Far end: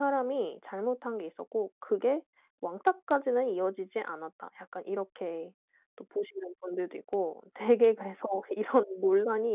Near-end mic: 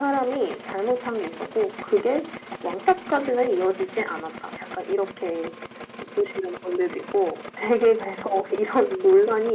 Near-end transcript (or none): none